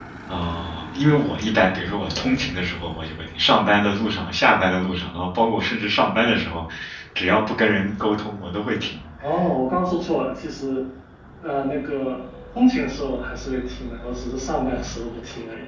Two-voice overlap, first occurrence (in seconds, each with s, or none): none